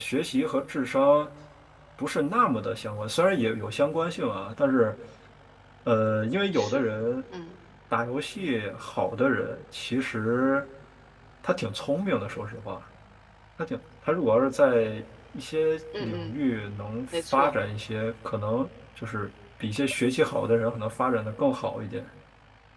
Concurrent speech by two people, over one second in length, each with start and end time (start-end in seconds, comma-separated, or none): none